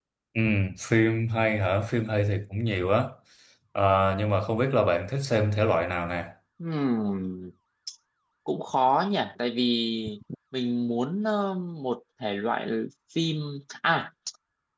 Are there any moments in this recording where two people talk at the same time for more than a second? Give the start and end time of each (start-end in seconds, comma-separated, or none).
none